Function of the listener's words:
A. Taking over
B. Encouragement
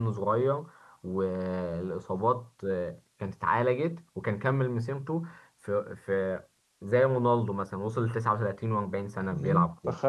A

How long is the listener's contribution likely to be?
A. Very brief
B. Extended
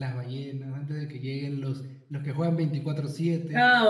B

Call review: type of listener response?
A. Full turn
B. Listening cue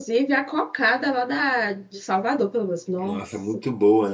A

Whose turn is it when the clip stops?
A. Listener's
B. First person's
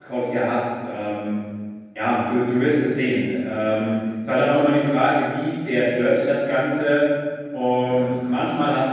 B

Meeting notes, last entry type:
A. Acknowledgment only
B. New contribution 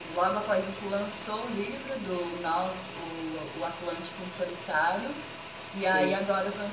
A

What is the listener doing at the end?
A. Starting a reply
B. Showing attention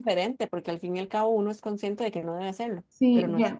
A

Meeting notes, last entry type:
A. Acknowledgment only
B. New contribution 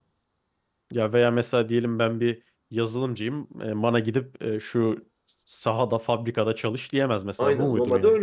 B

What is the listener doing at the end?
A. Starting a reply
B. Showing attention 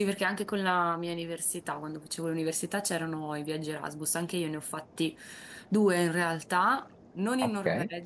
B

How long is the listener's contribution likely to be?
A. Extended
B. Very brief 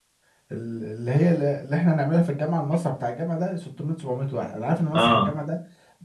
B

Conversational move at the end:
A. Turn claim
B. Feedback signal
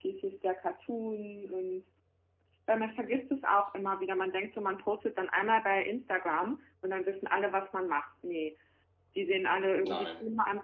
B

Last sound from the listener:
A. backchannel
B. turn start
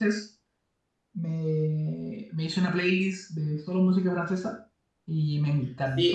B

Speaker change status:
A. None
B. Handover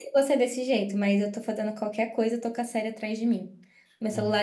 A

